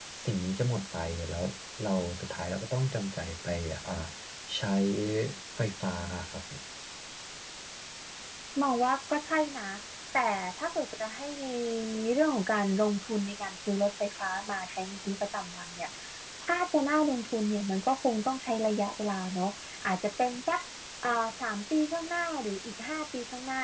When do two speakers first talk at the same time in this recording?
none

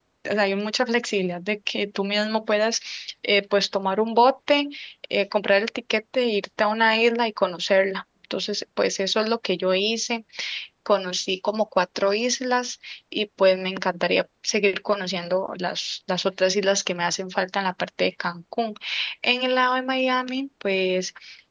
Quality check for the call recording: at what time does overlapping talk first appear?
none

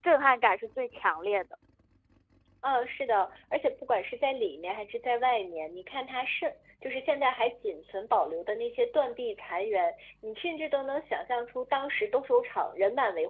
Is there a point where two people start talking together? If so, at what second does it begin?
none

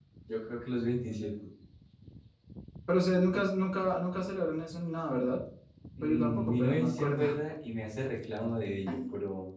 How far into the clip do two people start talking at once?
6.0 s

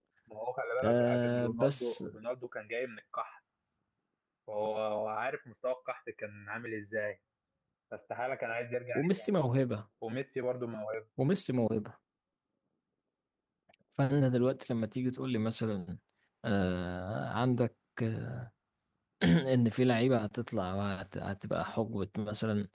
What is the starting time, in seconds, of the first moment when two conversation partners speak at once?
0.8 s

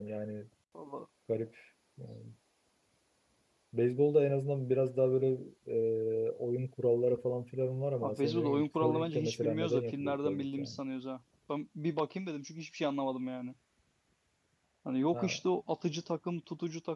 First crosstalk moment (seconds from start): 8.0 s

